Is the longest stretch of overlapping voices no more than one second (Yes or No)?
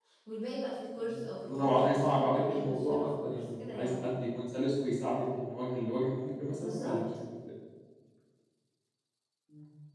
No